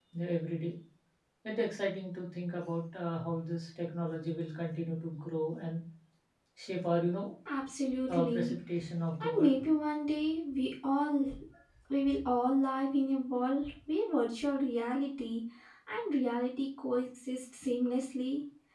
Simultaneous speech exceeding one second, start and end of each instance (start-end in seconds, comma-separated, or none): none